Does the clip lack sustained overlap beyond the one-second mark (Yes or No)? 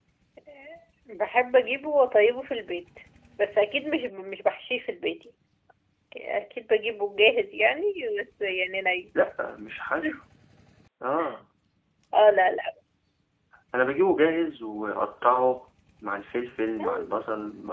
Yes